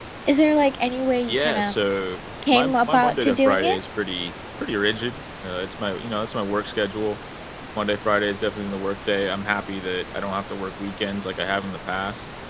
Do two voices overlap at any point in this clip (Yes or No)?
Yes